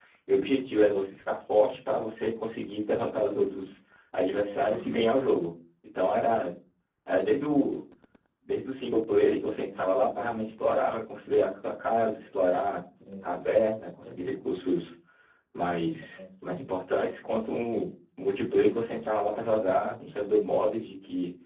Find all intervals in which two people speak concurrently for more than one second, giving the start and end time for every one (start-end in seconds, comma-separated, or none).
none